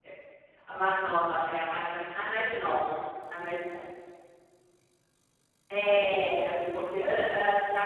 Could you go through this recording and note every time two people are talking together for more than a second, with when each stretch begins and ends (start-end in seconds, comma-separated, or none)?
none